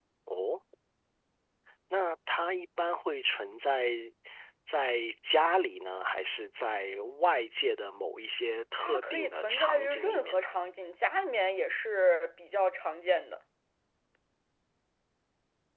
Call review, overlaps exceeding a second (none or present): present